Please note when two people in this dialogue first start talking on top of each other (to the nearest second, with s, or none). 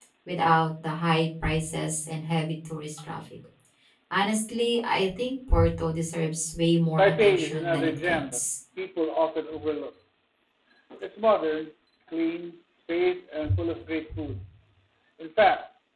7 s